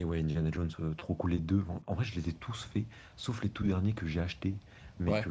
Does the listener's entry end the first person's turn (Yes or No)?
No